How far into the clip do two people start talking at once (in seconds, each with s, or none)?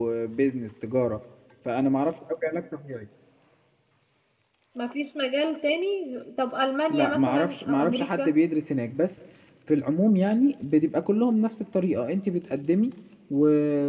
6.9 s